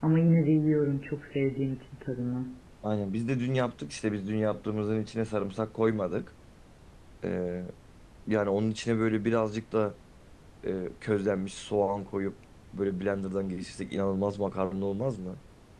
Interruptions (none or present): none